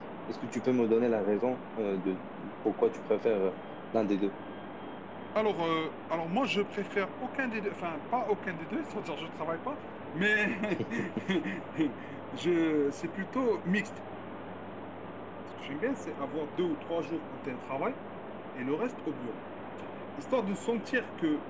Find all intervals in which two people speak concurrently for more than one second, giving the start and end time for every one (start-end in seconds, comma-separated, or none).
none